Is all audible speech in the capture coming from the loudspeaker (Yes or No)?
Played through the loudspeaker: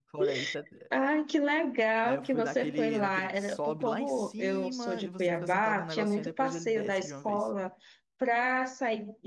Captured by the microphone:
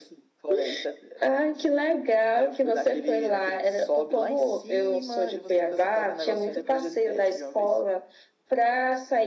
Yes